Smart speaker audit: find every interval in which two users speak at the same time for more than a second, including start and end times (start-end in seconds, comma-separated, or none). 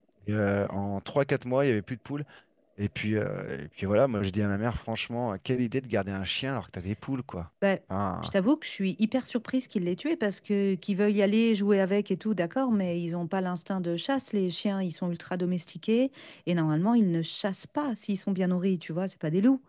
none